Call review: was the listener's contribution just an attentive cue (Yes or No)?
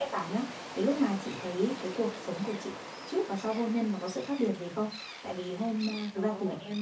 Yes